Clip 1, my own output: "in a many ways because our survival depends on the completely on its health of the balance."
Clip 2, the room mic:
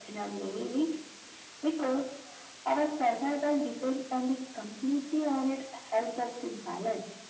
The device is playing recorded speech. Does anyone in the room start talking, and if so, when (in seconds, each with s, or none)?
none